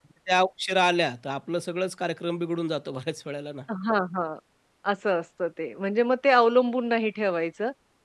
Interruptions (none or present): none